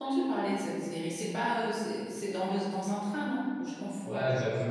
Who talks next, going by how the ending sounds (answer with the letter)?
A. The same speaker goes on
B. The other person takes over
B